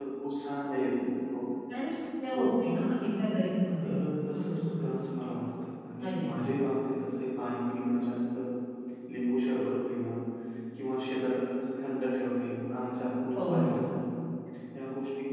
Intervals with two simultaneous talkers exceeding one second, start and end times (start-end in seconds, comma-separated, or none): none